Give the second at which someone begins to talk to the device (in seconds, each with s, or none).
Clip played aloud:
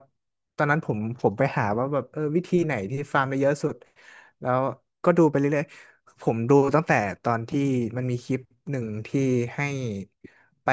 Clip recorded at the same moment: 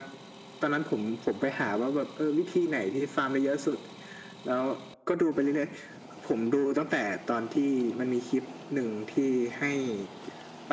none